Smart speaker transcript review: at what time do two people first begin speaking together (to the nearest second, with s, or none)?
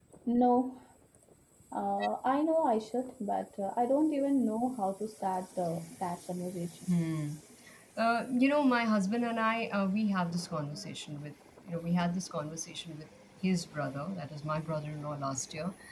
none